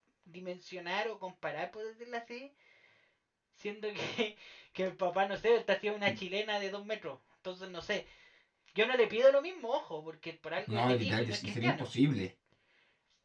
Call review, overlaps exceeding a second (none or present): present